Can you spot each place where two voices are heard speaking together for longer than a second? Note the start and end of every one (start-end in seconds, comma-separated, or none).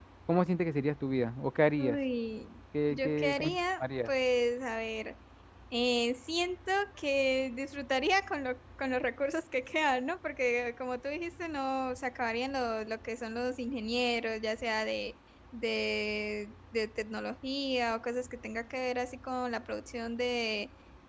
2.9-4.1